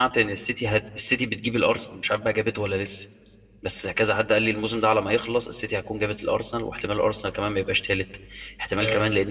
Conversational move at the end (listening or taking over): listening